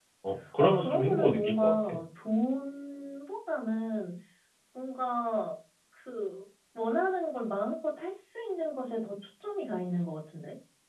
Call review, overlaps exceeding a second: present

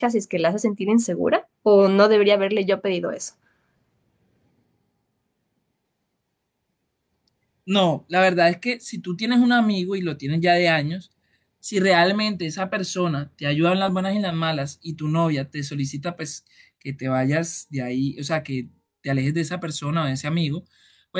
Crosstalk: none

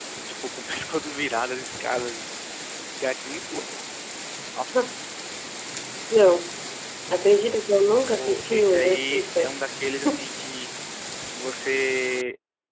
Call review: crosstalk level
present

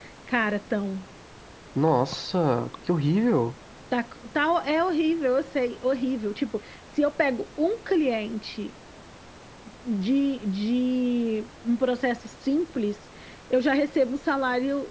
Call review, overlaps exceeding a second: none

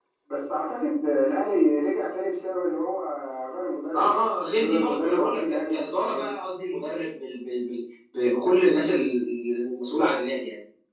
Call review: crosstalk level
present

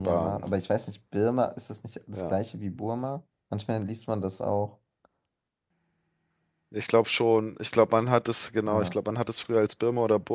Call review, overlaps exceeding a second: none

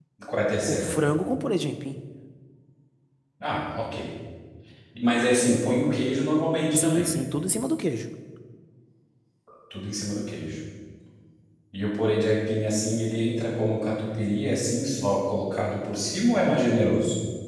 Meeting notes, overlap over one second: none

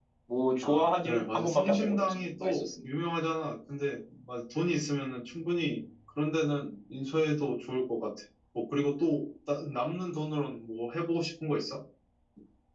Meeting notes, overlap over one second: present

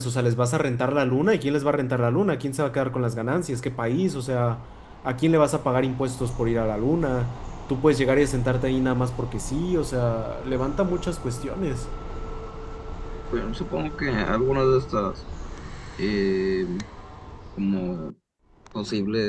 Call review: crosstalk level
none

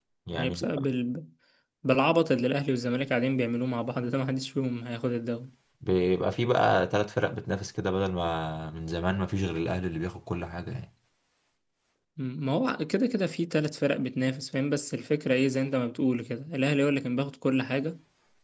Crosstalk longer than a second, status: none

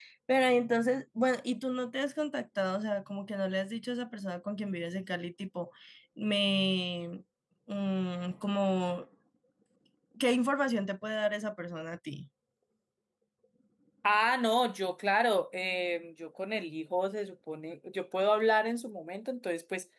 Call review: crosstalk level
none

